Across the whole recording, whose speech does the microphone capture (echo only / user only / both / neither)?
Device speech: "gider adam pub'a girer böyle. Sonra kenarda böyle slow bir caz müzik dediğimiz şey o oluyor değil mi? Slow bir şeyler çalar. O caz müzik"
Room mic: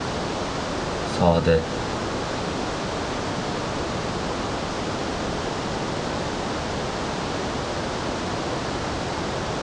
user only